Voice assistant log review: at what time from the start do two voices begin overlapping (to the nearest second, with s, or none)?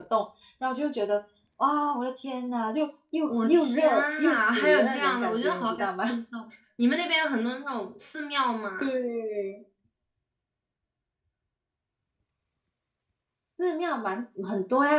3 s